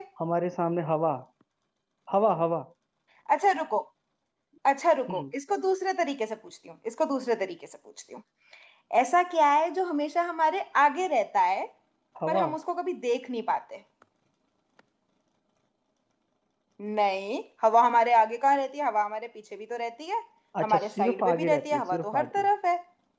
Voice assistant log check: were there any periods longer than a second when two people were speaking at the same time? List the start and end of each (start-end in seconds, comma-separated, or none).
20.6-22.5